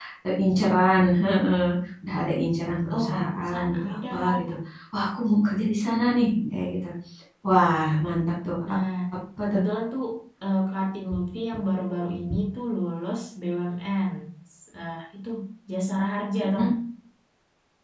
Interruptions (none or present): present